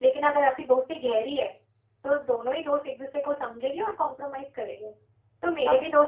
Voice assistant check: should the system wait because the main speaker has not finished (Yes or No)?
Yes